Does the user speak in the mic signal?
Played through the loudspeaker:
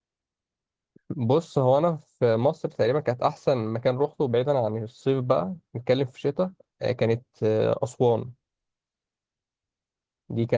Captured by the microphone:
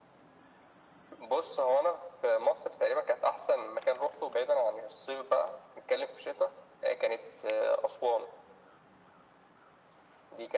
No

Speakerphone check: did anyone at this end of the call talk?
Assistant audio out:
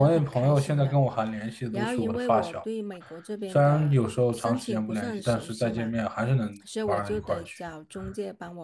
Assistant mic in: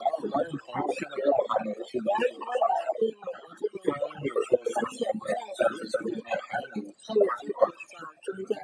No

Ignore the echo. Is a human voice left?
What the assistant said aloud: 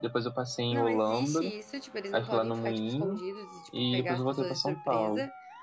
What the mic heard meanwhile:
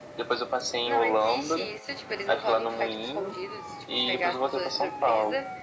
No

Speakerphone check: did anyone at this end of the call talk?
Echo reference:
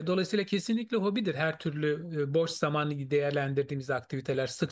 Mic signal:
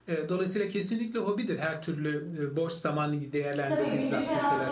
Yes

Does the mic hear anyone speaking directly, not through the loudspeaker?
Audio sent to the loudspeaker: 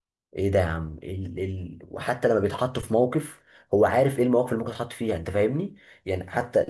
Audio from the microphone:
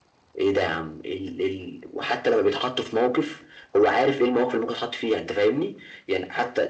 No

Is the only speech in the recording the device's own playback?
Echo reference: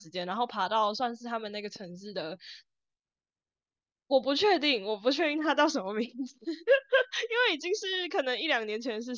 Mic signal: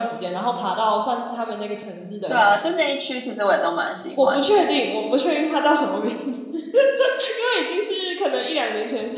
No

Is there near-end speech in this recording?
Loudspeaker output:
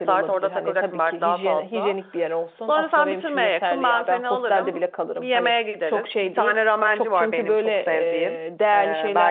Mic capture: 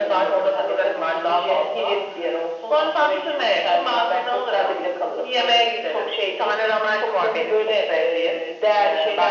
No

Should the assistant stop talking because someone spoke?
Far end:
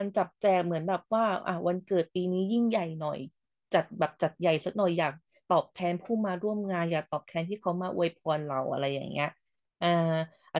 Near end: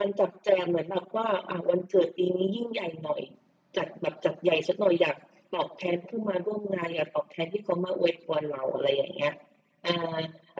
No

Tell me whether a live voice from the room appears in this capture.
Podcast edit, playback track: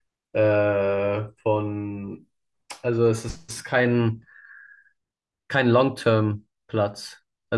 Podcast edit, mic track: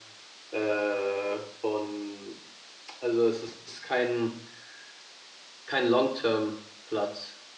No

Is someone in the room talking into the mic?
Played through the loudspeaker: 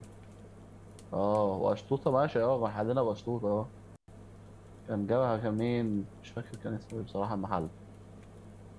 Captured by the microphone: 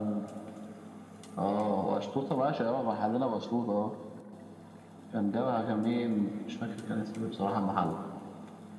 No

